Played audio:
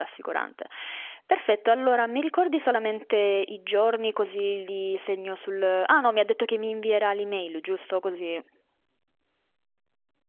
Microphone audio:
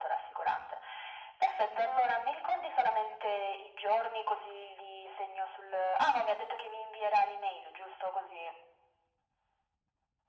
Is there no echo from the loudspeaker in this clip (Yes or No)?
No